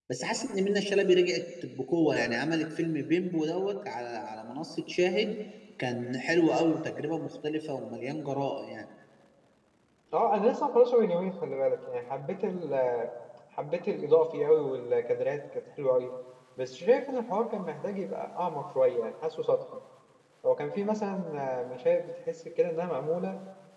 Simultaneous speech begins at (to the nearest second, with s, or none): none